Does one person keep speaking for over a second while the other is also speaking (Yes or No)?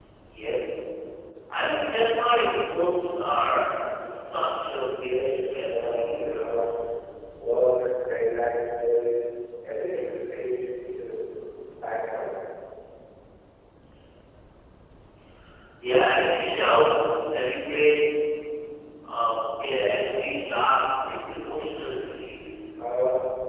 Yes